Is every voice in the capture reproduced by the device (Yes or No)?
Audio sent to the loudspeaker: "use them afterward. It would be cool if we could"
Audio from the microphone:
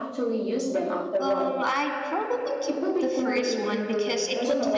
No